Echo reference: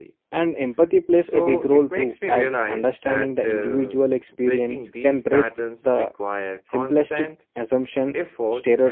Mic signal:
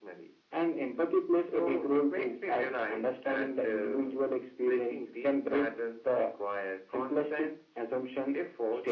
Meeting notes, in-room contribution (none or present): none